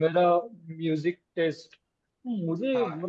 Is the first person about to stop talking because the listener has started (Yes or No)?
No